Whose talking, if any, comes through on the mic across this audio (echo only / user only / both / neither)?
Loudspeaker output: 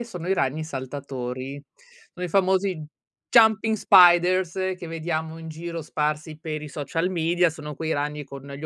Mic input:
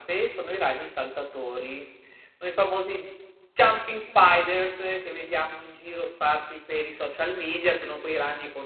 echo only